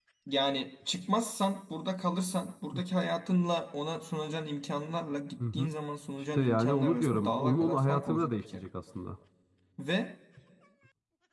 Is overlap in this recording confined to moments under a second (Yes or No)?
No